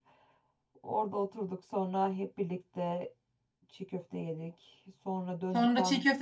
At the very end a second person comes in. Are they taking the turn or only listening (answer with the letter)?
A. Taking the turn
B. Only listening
A